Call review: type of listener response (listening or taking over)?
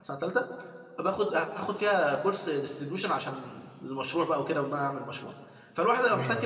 listening